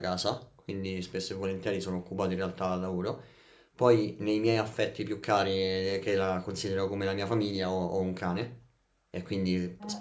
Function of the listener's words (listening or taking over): listening